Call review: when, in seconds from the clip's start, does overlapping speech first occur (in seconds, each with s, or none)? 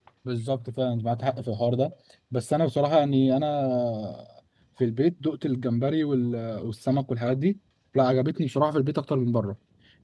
none